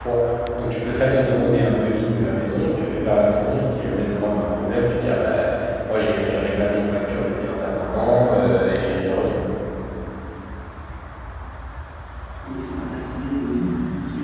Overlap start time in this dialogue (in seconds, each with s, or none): none